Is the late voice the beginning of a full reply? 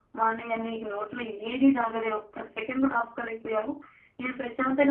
No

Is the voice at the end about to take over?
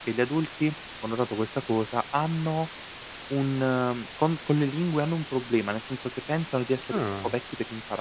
No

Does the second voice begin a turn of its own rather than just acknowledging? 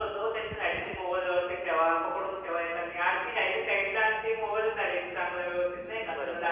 Yes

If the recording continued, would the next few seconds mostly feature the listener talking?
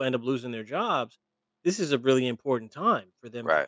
No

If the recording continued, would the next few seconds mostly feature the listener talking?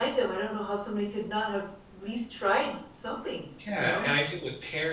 Yes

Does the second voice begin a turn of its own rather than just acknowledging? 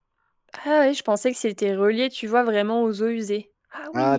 Yes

